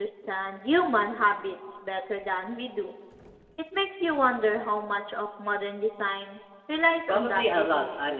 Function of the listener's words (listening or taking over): taking over